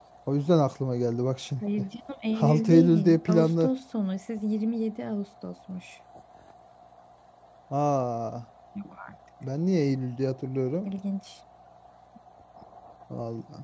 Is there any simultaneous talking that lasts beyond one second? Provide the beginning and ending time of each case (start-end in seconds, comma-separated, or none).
2.4-3.7